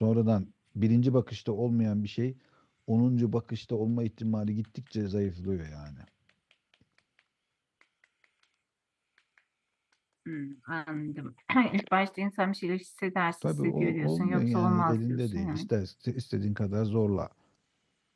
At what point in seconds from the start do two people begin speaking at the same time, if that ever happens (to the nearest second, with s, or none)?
13 s